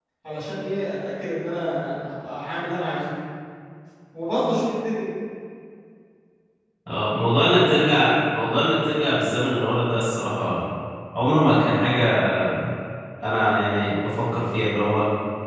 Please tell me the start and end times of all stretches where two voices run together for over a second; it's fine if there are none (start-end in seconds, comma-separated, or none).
none